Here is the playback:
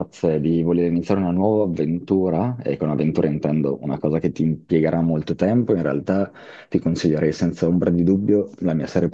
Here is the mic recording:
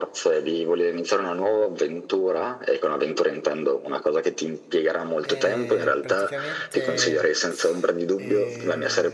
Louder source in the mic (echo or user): echo